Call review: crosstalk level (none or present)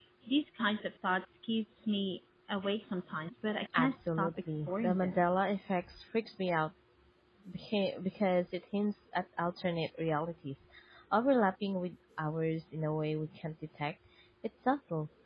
present